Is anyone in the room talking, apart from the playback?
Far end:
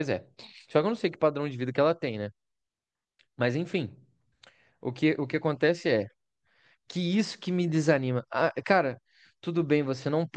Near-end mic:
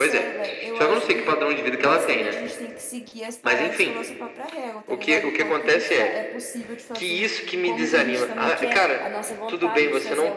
Yes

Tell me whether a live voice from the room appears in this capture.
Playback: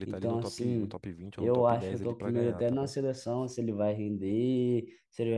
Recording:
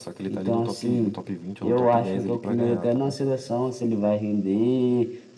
No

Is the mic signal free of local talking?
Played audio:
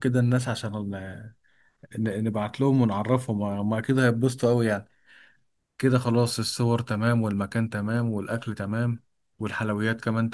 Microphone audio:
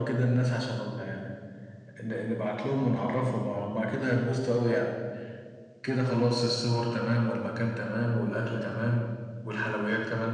Yes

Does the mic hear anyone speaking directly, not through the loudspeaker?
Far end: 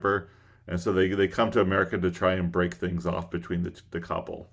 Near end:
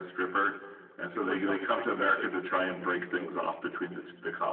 Yes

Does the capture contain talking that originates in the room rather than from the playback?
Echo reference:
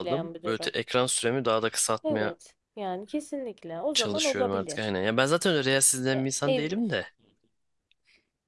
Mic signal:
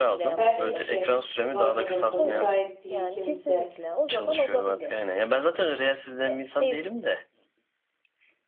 Yes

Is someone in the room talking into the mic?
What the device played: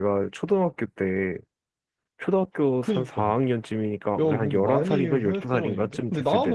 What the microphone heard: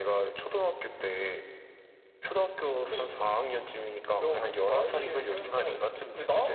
No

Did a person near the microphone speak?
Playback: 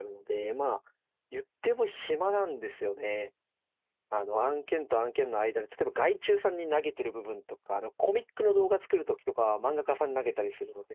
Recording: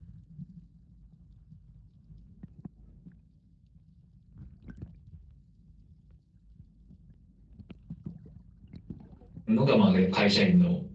Yes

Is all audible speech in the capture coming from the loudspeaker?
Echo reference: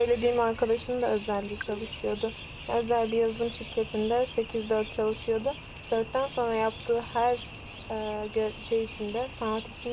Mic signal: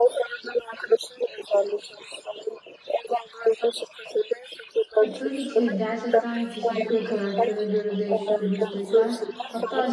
No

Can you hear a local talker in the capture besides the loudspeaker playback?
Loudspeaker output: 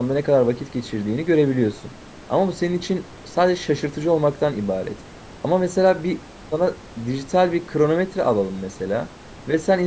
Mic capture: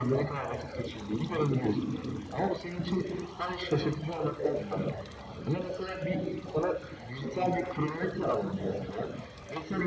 No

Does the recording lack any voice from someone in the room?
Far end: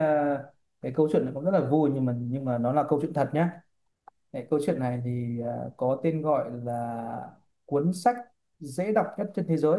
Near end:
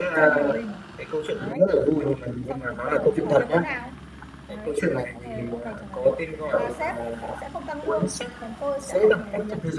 No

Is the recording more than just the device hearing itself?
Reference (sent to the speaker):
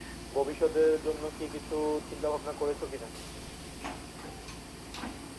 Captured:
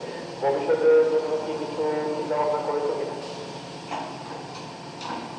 No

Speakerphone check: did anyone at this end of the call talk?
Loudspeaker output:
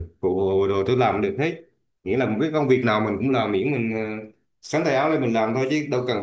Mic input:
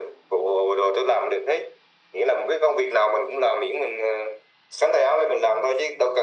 No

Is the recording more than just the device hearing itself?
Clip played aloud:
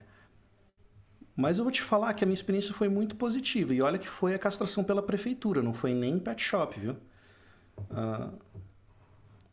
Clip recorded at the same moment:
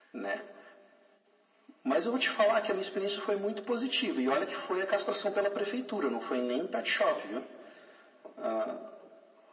No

